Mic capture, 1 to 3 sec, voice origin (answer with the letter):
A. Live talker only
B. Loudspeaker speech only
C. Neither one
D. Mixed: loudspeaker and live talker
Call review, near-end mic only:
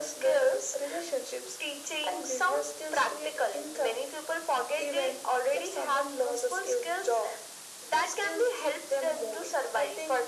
B